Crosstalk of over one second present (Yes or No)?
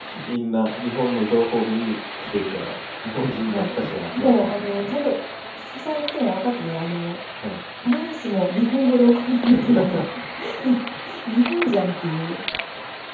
Yes